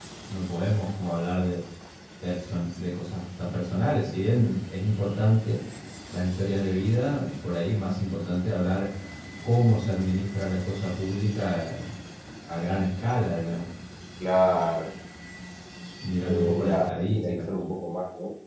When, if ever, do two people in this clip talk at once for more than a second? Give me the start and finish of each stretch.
16.2-17.5

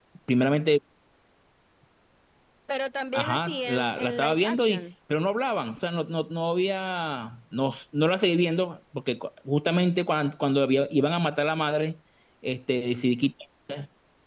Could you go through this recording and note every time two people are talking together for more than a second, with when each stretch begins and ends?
3.1-4.8

